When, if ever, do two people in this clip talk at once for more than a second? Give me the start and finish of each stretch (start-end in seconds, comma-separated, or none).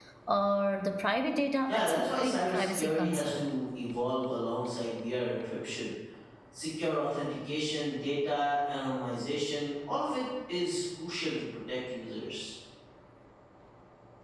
1.7-3.4